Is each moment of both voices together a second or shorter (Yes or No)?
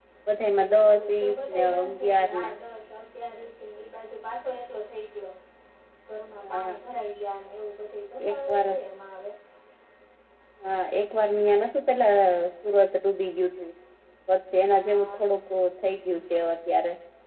No